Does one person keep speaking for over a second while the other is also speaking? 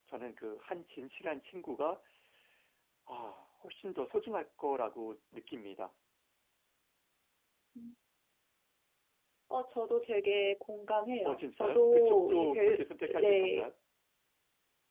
Yes, from 11.2 s

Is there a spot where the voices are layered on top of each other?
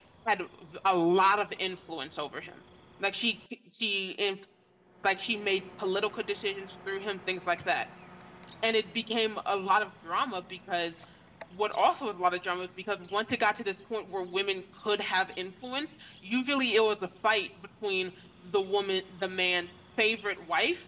No

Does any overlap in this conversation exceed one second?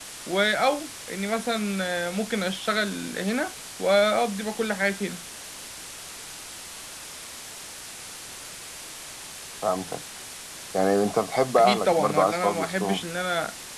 Yes, from 11.6 s

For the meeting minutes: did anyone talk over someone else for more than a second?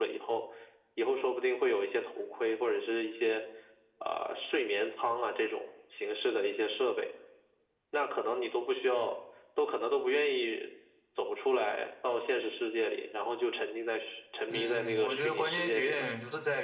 Yes, from 14.5 s

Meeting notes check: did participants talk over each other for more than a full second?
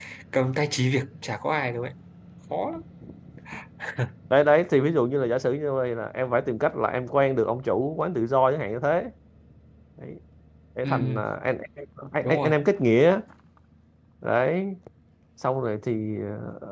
No

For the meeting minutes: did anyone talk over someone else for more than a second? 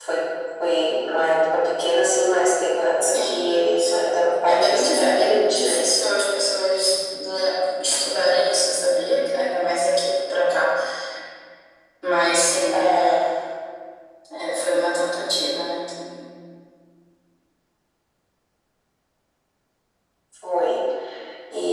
Yes, from 3.1 s

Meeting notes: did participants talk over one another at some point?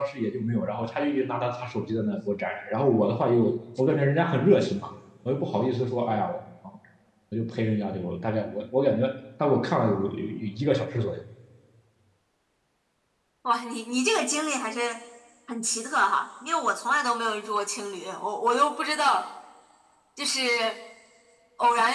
No

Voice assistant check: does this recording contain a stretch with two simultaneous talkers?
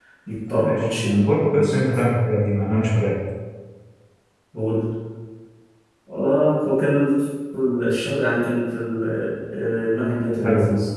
Yes, from 0.6 s

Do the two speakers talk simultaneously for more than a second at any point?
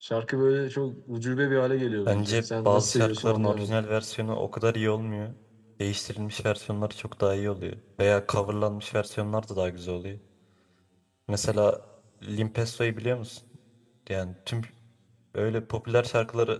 Yes, from 2.1 s

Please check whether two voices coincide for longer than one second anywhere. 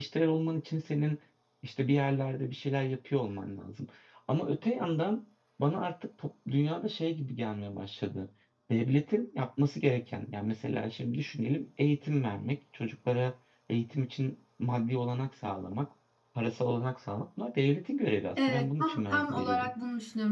Yes, from 18.4 s

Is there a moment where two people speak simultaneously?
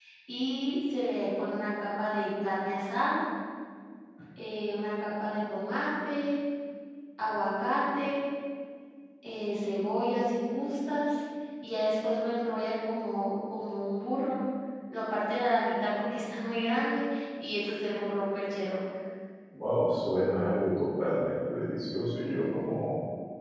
No

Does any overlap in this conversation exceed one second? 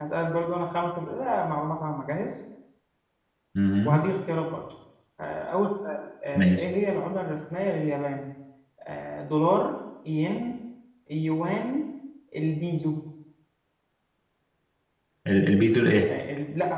No

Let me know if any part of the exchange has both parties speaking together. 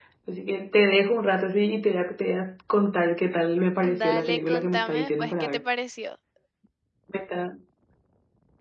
Yes, from 3.8 s

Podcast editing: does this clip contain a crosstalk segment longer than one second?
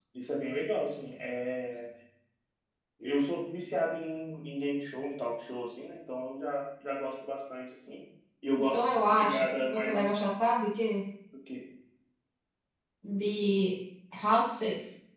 Yes, from 8.7 s

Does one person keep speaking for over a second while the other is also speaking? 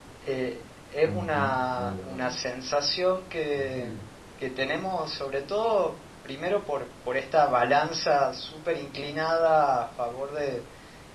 Yes, from 1.1 s

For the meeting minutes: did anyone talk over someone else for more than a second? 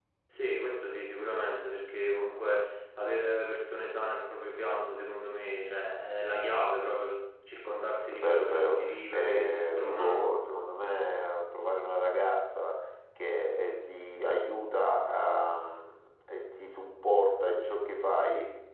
Yes, from 8.1 s

